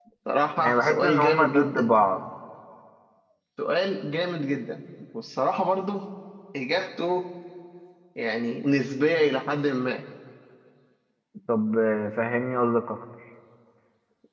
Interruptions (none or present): present